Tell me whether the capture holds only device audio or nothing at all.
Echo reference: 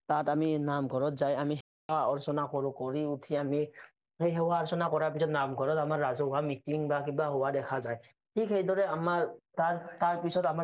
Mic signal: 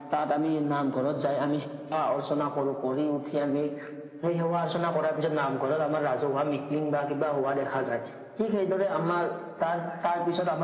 Yes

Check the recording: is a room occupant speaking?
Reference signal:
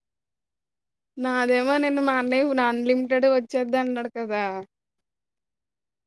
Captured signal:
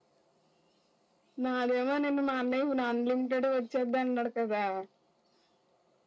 No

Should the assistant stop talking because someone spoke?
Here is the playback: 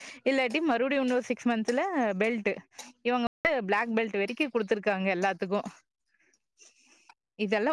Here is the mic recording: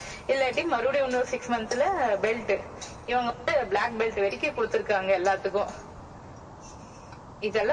No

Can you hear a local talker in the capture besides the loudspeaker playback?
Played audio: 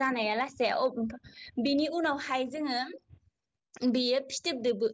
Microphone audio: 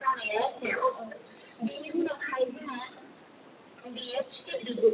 No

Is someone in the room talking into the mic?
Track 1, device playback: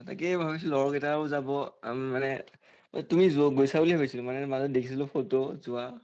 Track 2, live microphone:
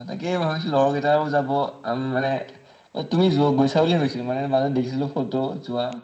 No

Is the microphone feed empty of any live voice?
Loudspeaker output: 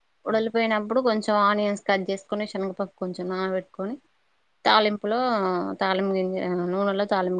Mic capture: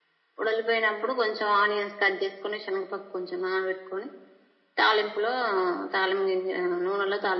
Yes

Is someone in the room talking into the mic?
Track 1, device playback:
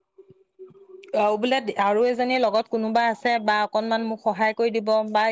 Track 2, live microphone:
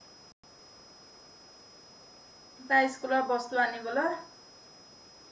Yes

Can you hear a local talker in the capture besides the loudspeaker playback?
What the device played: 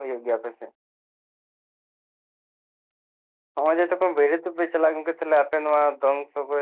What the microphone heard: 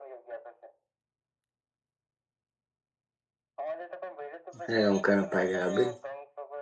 Yes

